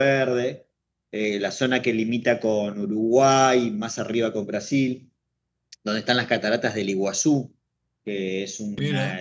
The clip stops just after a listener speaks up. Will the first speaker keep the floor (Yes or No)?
Yes